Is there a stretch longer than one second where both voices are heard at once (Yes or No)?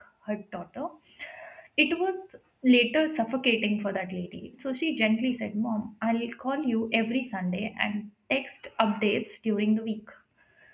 No